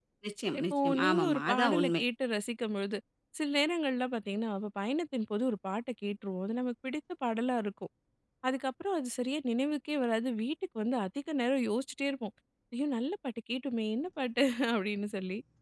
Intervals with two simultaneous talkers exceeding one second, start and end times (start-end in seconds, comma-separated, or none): 0.6-2.0